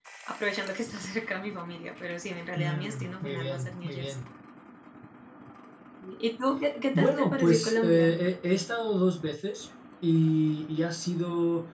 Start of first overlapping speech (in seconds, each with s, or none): 2.6 s